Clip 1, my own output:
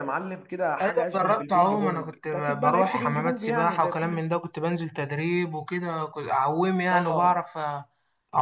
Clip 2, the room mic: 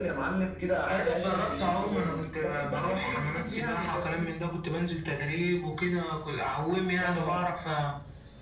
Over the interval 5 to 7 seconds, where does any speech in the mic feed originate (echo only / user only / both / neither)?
echo only